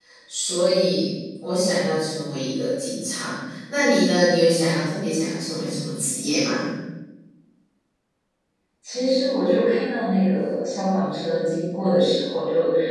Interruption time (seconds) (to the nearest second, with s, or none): none